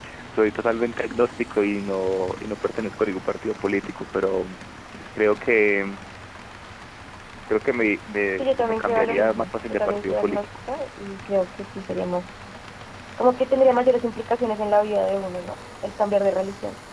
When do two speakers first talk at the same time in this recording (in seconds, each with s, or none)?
8.4 s